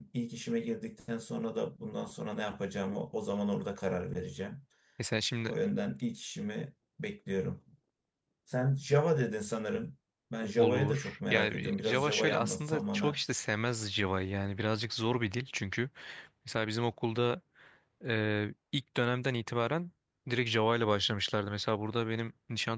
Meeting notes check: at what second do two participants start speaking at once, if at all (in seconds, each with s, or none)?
10.6 s